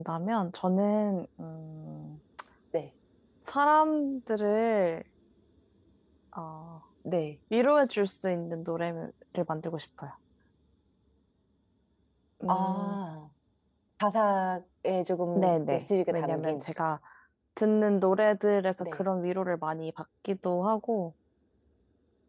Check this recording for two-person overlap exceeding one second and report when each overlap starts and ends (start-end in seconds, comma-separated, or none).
15.4-16.6